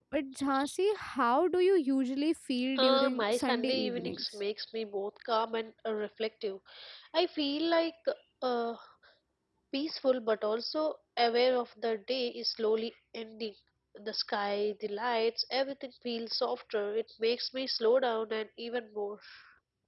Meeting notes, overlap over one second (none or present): present